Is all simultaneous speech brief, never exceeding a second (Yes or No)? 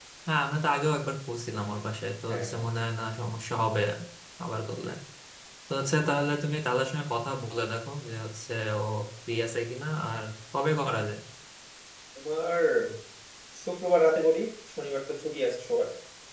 Yes